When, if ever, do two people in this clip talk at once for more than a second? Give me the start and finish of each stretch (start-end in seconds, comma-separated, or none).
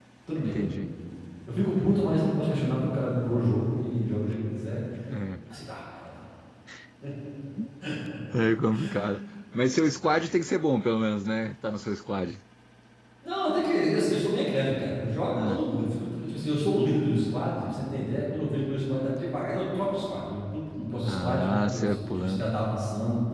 21.1-22.5